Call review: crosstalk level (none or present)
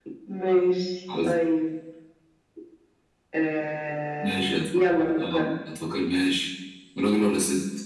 present